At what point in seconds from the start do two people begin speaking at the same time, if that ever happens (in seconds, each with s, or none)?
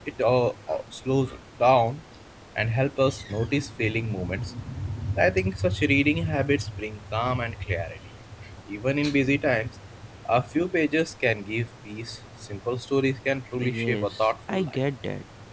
13.6 s